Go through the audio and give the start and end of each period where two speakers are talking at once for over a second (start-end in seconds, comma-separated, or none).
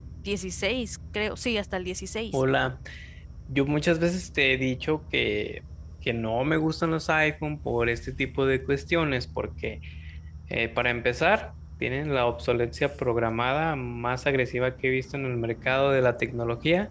none